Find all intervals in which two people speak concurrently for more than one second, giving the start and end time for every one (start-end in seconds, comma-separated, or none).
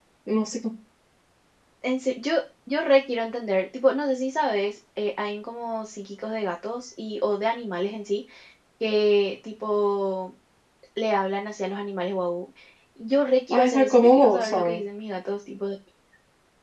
13.5-14.8